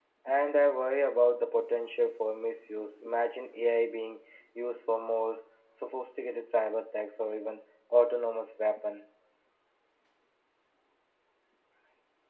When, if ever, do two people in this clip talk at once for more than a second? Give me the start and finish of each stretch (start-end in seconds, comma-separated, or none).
none